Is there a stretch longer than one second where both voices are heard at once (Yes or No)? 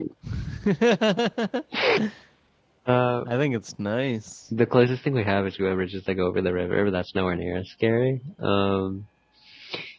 No